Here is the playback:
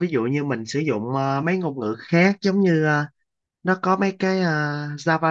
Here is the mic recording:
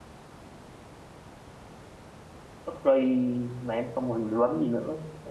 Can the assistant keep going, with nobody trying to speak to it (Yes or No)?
No